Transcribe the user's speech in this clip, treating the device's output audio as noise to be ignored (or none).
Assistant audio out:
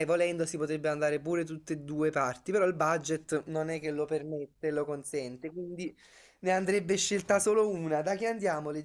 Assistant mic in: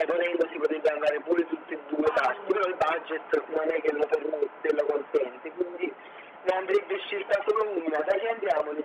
Tanto,